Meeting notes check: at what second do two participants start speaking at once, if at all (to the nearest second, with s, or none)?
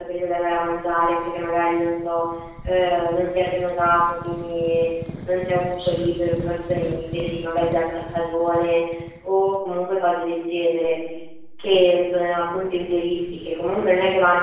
none